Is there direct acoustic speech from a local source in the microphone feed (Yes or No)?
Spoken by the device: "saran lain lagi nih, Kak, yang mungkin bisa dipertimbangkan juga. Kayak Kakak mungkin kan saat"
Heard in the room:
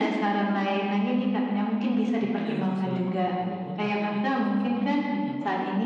Yes